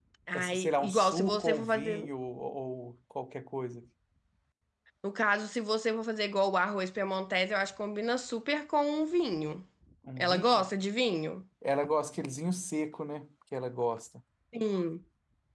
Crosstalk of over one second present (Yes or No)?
Yes